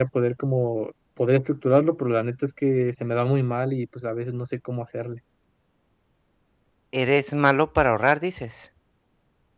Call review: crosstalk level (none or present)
none